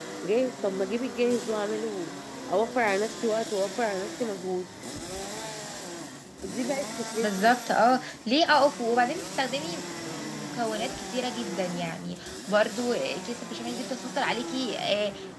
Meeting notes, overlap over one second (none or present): none